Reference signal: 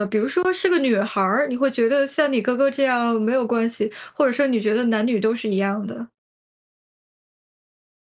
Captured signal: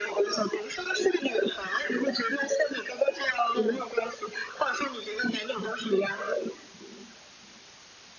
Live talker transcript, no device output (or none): 嗯。